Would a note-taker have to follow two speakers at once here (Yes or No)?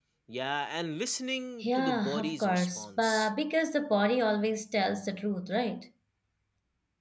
Yes